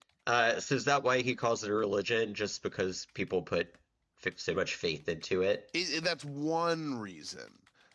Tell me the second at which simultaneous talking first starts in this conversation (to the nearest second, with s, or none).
none